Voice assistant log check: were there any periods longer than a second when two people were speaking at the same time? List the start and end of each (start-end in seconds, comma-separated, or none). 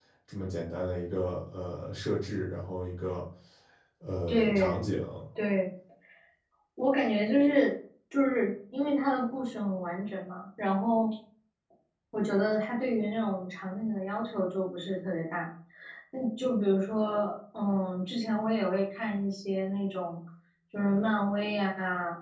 none